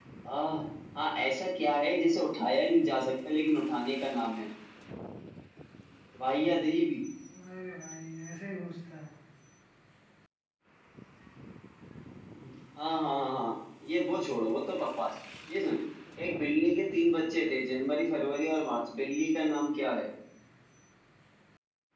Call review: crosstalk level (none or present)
none